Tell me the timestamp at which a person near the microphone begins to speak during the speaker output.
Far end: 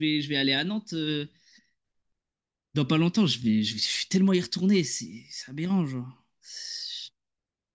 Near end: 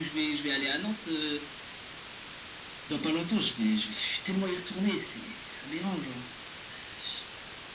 none

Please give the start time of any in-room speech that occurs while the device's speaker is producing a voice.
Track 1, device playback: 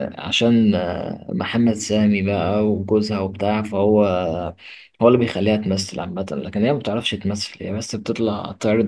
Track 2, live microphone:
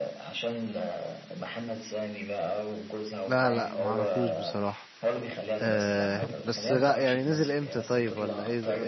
3 s

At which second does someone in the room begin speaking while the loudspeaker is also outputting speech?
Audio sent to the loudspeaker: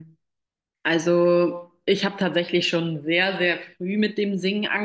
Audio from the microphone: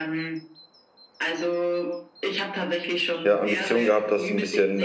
3 s

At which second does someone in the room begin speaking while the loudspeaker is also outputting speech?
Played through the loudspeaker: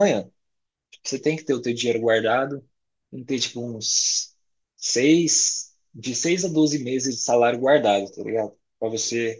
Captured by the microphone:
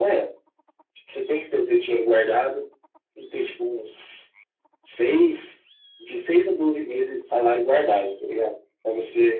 none

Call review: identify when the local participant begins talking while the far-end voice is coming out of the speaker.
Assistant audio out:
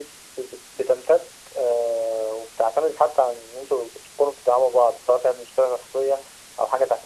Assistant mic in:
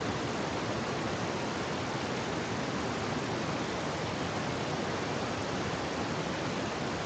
none

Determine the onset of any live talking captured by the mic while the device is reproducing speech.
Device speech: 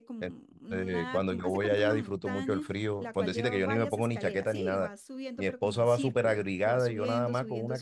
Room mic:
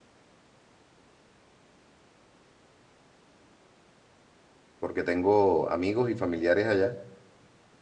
5 s

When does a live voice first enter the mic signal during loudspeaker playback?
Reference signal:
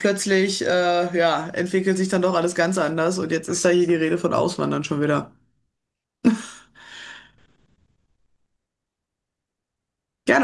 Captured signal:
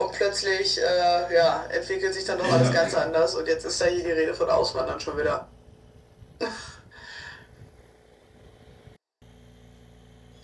2 s

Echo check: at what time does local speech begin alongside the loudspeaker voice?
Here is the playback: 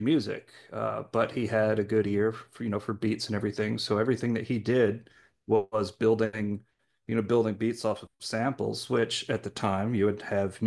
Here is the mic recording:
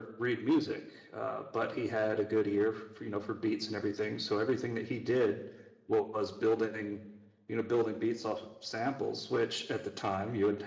none

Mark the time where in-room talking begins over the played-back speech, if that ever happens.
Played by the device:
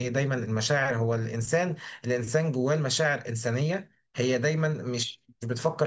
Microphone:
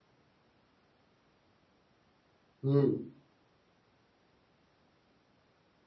3 s

